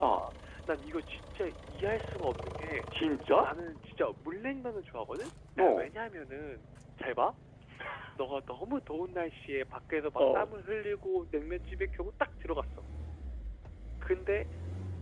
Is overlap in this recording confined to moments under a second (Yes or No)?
Yes